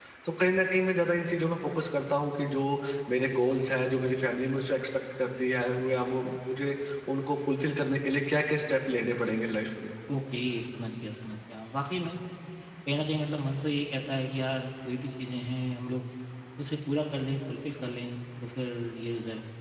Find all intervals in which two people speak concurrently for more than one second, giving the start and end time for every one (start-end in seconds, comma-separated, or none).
none